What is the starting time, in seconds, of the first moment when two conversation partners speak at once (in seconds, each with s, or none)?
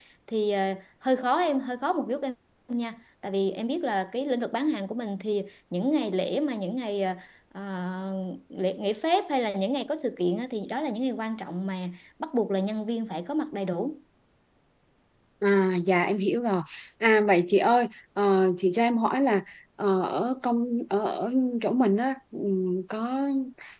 none